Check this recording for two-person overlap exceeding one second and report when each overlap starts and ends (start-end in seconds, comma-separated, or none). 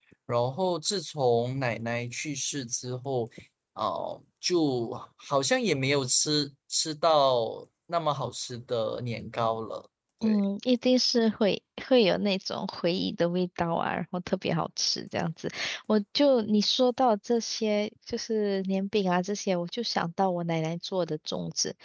none